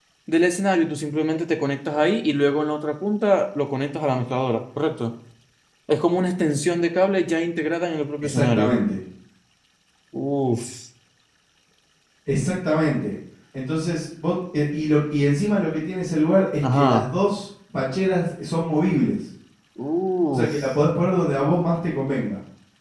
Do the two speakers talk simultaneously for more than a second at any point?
No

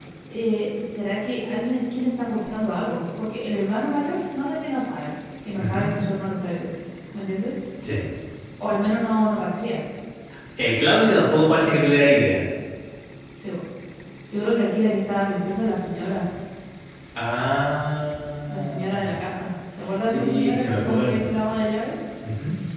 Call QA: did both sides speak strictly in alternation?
No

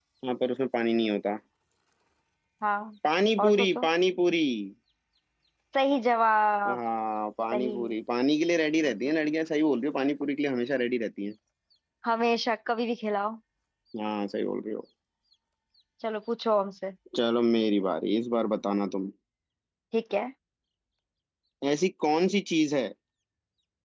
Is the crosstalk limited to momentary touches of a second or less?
Yes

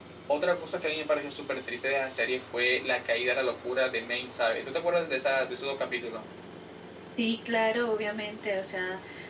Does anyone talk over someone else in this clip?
No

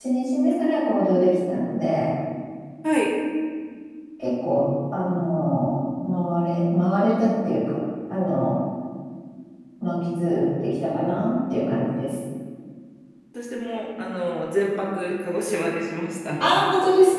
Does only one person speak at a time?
Yes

